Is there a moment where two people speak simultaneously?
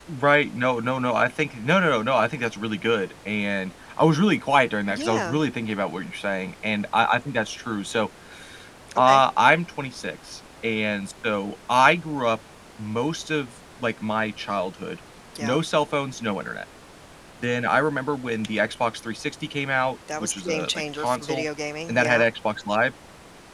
Yes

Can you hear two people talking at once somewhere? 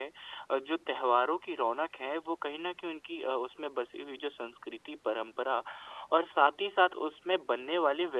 No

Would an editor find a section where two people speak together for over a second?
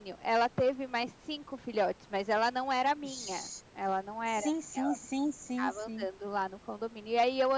No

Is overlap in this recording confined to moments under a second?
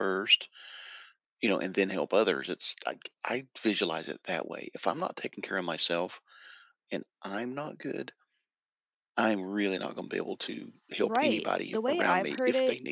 No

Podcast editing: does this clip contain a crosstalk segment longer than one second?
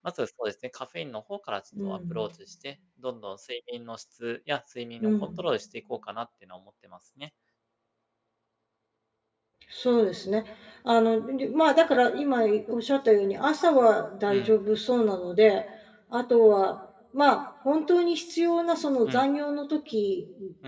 No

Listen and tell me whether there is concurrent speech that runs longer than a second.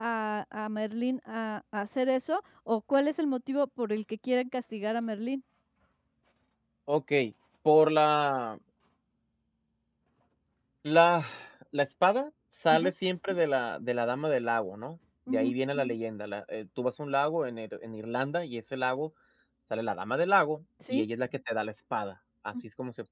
No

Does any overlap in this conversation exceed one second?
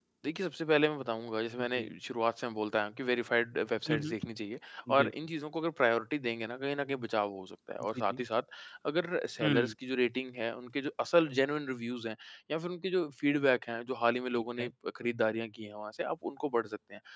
No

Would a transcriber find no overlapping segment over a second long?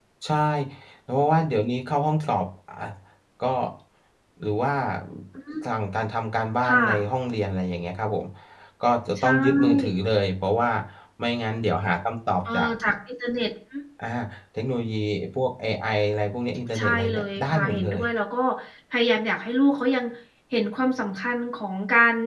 No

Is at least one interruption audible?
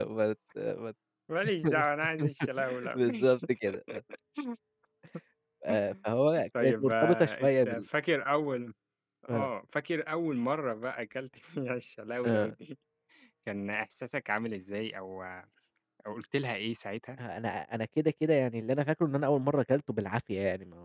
Yes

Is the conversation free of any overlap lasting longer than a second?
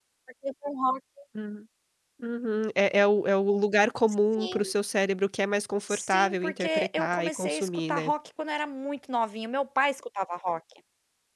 No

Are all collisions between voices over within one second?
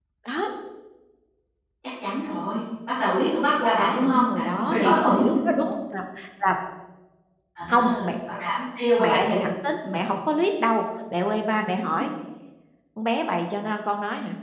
No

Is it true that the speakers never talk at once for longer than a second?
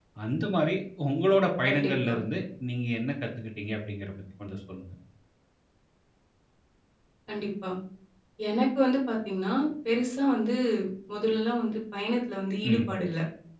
Yes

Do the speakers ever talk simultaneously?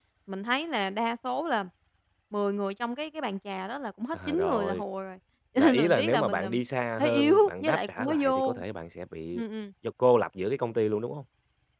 Yes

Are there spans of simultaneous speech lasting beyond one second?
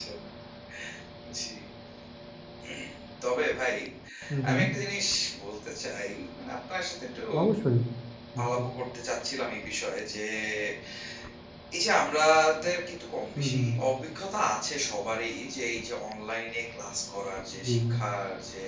No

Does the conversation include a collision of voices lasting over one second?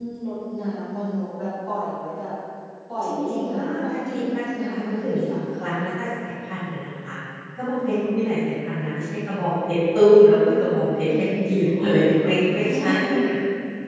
Yes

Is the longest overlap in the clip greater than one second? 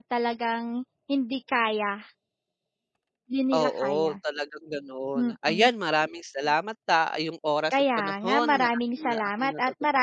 Yes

